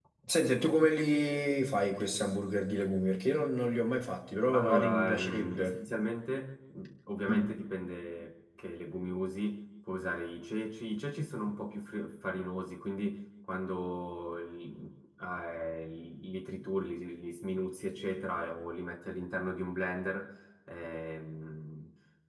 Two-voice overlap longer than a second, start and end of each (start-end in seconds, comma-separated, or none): 4.5-5.8